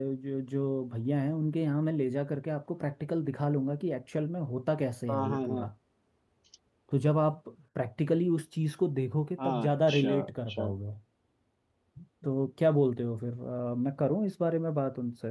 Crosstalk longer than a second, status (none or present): present